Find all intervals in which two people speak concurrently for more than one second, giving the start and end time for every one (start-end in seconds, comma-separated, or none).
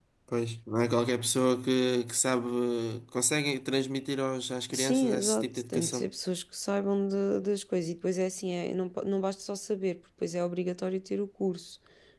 4.7-6.0